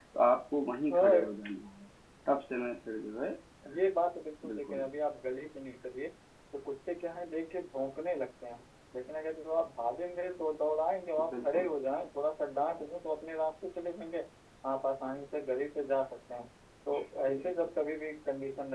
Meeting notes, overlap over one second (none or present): none